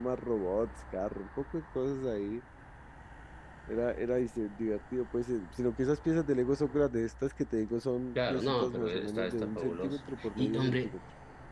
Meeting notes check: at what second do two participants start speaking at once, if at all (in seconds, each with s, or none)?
8.2 s